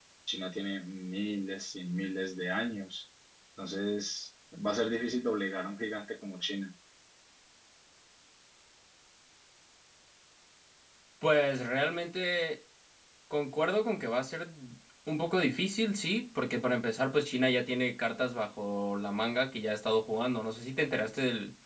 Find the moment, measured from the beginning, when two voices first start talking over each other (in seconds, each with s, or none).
none